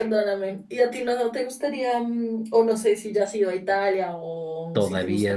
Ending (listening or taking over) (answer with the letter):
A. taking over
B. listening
A